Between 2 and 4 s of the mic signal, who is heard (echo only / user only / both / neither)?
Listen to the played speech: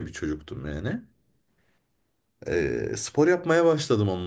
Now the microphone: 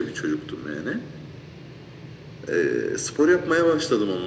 echo only